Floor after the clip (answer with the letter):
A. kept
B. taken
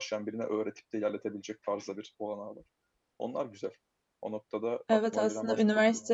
B